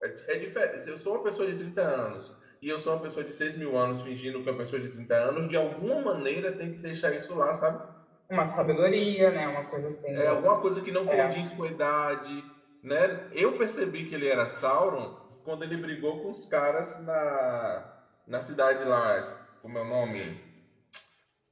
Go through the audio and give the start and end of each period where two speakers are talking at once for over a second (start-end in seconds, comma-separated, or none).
none